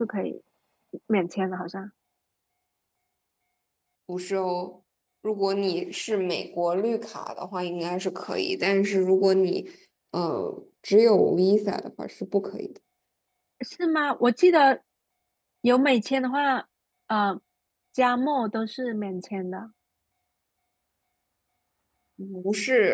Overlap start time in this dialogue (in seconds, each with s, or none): none